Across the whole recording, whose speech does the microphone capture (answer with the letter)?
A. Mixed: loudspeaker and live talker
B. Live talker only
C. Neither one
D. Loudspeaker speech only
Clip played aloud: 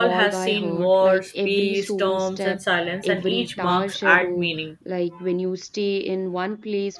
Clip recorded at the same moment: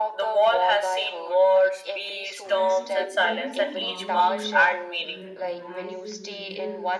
A